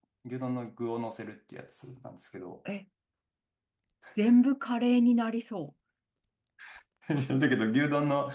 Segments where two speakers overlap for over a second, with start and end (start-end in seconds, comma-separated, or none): none